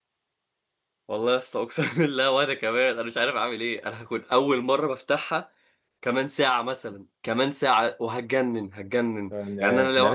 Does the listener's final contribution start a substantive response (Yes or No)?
Yes